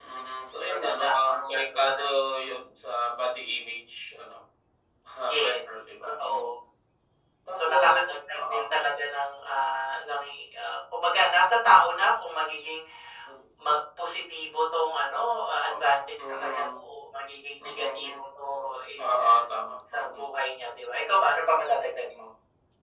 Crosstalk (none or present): present